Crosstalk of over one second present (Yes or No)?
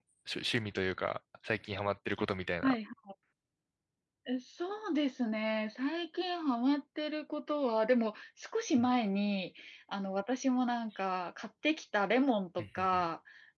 No